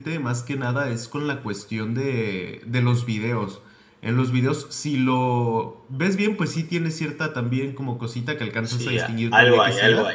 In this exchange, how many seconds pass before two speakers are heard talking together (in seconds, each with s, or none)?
8.7 s